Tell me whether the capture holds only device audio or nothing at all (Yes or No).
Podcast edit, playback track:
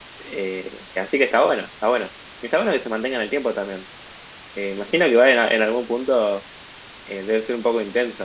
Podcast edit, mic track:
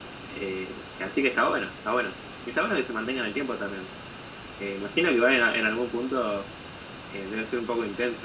Yes